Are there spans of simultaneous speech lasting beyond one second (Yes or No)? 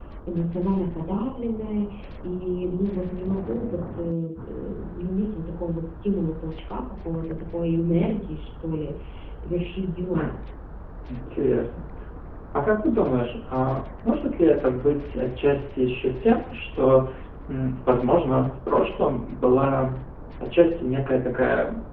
No